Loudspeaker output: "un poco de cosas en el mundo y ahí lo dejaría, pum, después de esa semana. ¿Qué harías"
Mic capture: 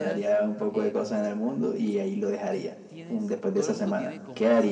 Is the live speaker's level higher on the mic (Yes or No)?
No